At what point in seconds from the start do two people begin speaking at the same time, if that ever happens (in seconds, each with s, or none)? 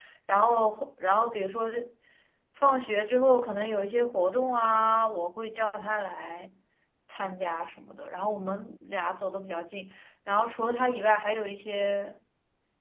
none